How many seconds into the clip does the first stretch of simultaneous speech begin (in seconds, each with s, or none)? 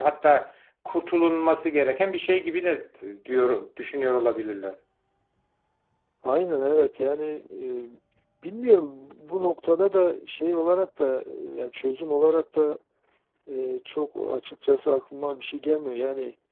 none